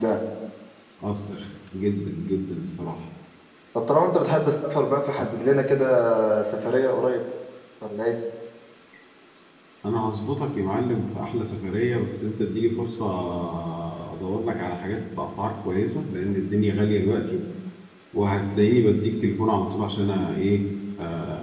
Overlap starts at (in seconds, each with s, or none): none